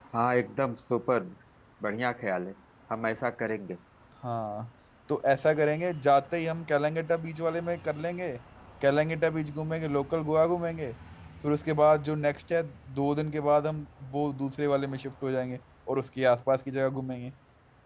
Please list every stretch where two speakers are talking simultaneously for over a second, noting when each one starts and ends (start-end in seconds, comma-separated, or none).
none